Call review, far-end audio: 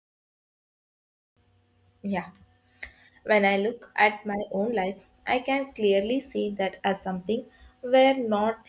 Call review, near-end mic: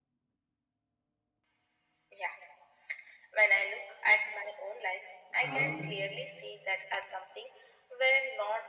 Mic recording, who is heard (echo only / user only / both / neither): both